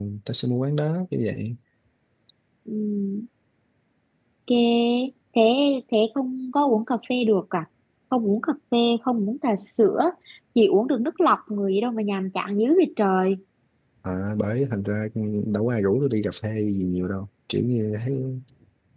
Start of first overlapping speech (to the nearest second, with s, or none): none